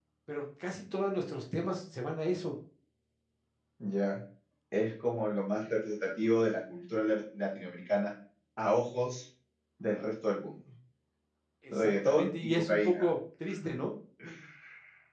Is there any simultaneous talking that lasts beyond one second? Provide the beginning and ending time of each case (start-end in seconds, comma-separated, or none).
11.7-13.1